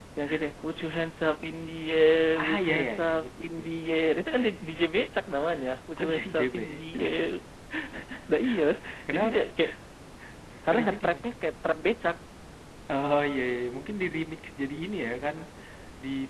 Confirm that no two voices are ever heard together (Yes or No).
No